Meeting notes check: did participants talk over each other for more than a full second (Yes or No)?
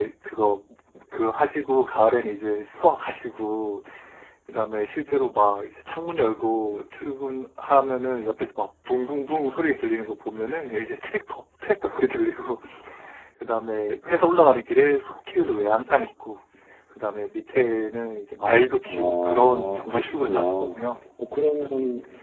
Yes